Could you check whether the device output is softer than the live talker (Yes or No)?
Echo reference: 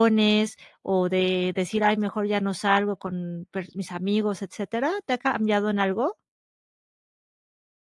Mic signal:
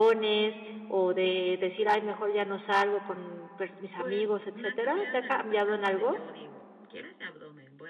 No